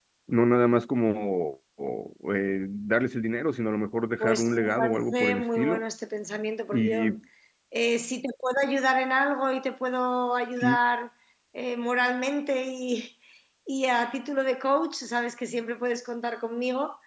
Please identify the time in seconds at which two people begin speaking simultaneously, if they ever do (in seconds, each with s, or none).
4.2 s